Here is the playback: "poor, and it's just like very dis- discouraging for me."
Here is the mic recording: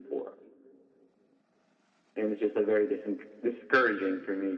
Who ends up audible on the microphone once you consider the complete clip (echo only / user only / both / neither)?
echo only